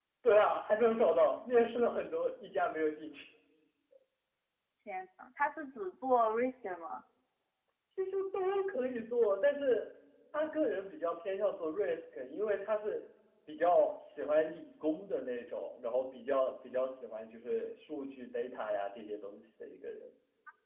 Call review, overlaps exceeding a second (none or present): none